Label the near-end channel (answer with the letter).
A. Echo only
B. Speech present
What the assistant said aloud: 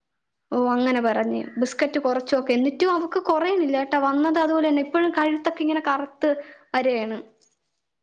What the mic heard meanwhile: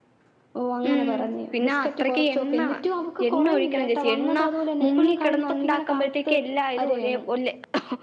B